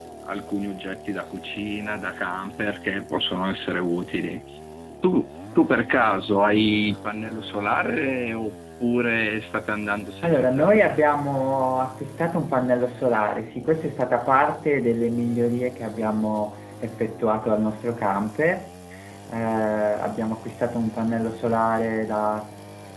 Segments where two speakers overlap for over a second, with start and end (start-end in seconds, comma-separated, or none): none